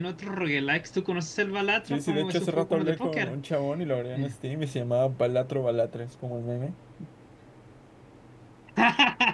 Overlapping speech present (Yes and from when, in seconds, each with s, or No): Yes, from 1.9 s